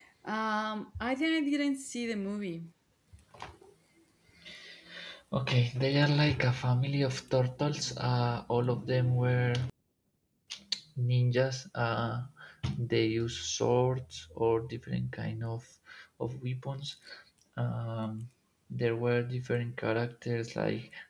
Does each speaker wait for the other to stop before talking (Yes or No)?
Yes